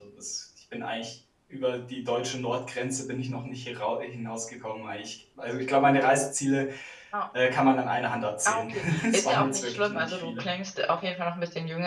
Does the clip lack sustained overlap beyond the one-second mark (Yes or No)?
No